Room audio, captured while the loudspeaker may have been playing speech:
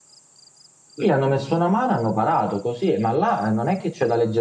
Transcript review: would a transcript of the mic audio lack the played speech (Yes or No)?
Yes